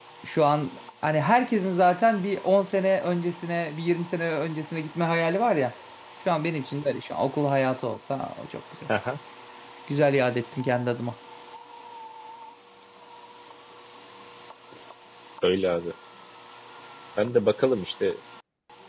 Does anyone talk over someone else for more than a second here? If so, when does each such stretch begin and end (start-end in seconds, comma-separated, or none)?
none